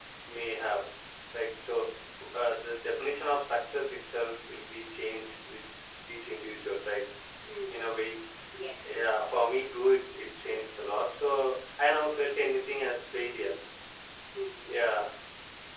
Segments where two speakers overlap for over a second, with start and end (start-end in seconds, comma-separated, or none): none